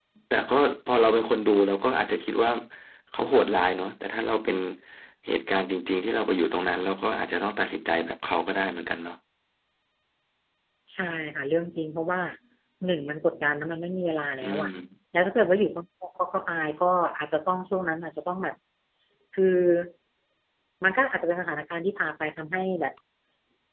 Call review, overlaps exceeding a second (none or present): none